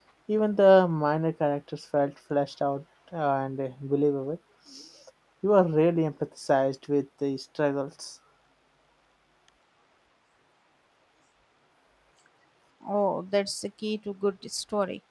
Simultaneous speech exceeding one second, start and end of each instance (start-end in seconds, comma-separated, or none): none